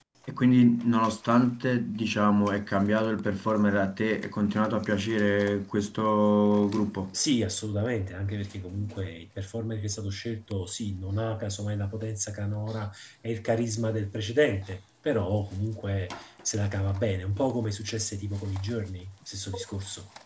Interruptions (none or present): none